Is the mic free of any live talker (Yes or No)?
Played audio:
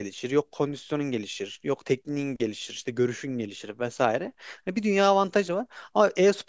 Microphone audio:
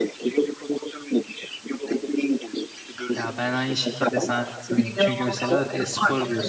No